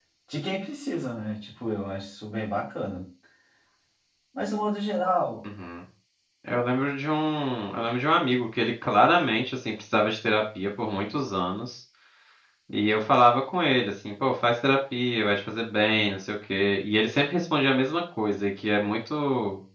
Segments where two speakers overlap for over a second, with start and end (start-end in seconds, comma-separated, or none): none